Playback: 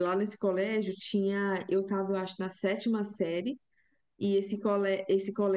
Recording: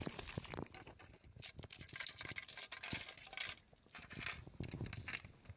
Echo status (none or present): none